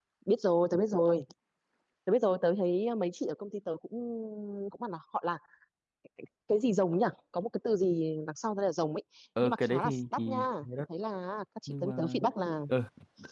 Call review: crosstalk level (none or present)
present